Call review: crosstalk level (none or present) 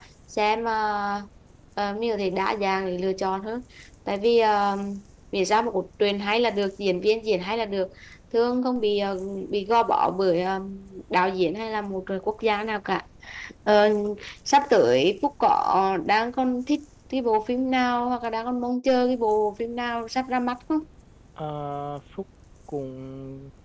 none